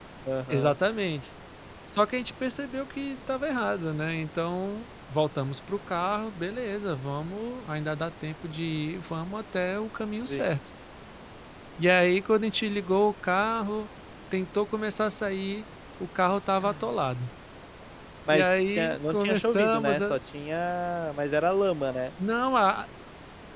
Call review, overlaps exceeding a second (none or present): present